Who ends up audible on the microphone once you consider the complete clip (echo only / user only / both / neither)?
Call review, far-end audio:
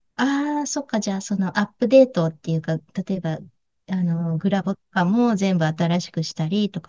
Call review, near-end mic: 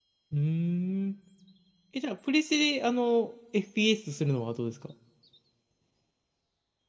user only